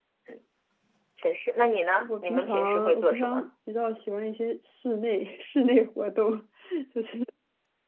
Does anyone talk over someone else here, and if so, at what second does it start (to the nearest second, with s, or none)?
2 s